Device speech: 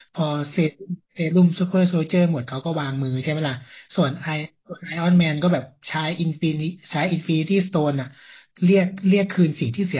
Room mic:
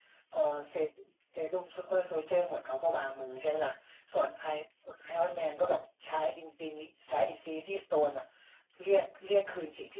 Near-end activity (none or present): none